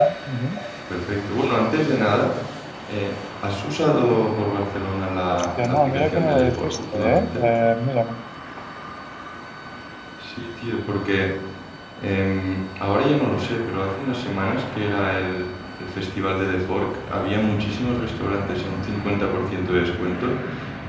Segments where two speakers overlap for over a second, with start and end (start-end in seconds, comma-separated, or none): 5.3-7.4